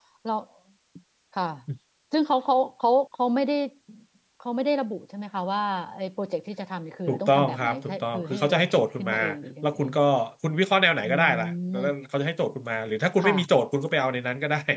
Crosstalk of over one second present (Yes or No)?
Yes